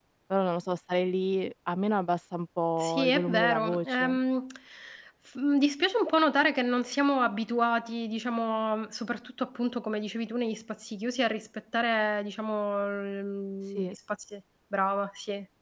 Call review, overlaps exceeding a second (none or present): present